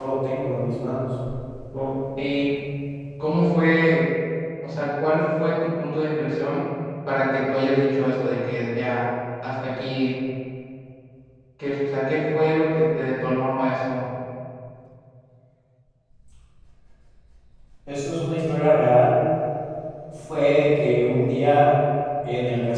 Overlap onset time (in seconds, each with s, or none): none